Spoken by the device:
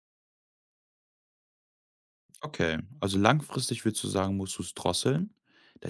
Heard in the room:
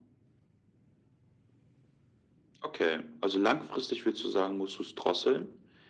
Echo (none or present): present